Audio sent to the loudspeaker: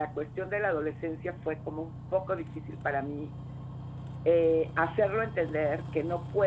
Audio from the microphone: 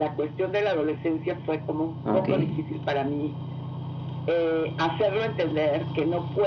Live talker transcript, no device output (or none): Okey.